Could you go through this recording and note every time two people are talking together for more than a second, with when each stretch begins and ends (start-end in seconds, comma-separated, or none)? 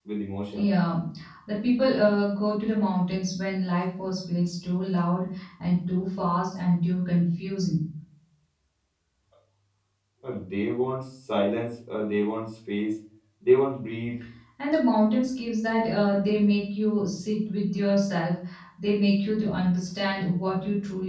none